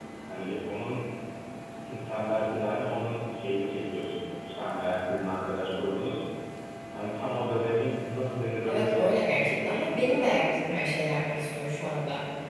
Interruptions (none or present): present